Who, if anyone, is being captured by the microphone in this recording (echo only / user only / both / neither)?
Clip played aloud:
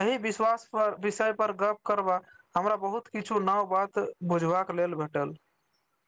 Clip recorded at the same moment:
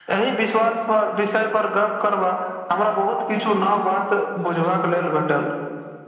echo only